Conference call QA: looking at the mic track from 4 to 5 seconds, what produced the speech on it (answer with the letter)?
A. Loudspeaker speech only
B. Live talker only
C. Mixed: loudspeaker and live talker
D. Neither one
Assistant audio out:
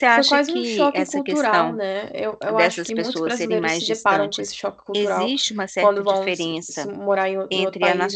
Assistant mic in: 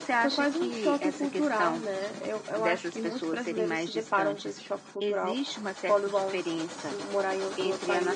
A